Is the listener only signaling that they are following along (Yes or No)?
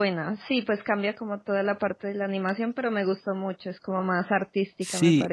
No